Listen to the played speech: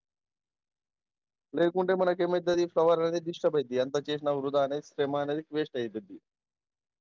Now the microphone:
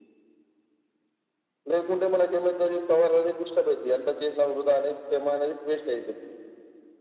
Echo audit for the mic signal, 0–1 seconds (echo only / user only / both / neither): neither